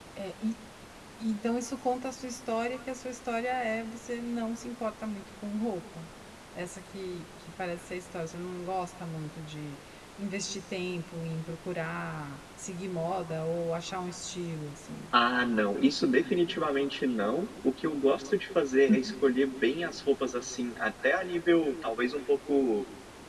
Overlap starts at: none

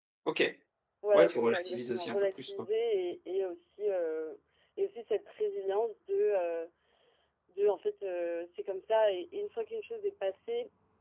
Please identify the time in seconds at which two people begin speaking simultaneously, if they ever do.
1.1 s

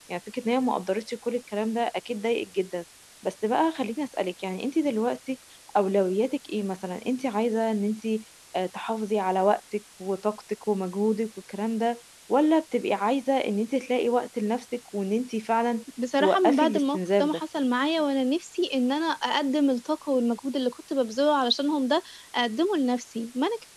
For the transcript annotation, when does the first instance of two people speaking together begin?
16.0 s

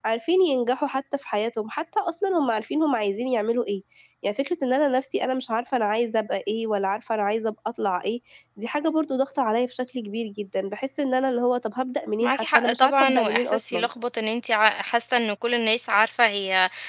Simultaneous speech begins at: 12.2 s

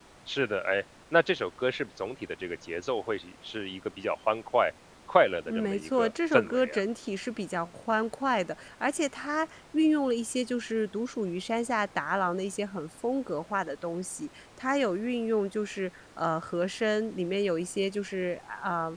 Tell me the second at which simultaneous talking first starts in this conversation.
5.5 s

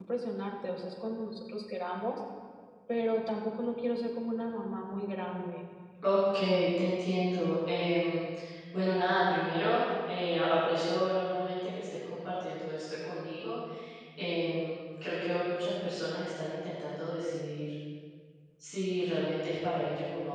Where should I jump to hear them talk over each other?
none

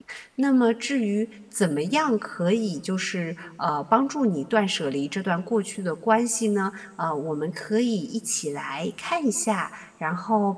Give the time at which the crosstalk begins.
none

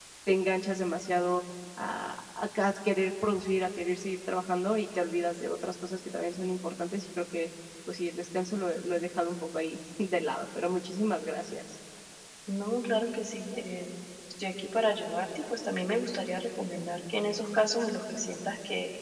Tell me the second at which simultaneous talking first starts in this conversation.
none

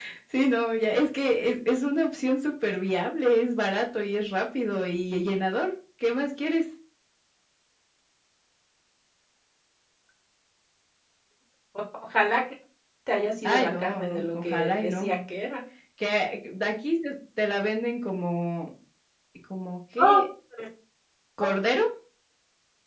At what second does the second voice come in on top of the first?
13.4 s

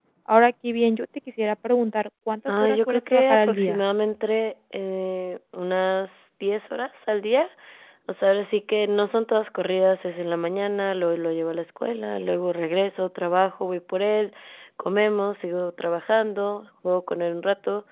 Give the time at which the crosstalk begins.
2.5 s

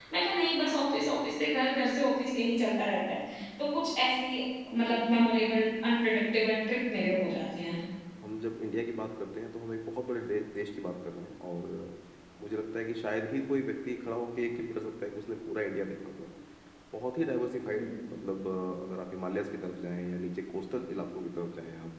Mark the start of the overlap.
none

